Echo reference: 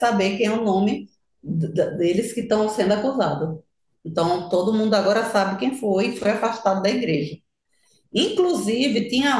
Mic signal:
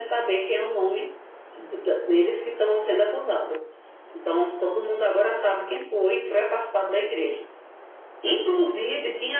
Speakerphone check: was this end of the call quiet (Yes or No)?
Yes